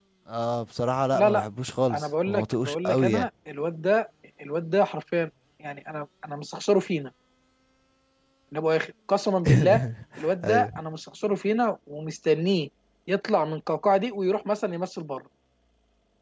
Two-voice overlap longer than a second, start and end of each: 1.9-3.3

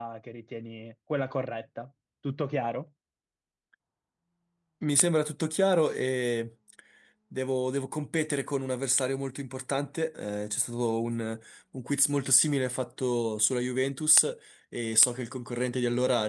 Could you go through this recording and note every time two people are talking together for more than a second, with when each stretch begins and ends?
none

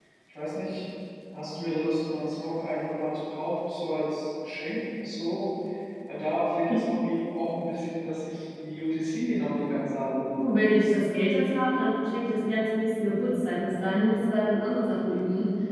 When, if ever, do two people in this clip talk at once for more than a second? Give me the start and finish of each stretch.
none

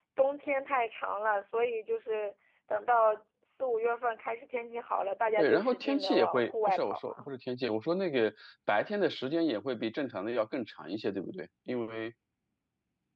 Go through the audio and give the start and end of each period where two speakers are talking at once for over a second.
5.4-7.3

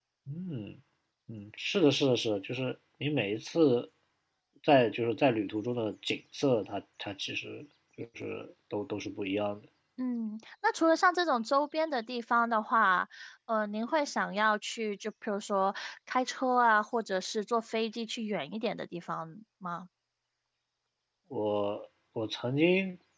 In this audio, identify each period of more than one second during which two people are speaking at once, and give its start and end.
none

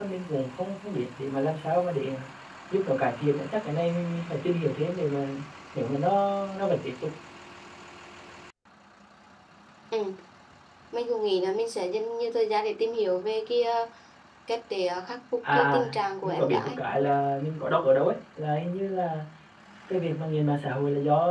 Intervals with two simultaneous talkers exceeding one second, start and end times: 15.5-16.8

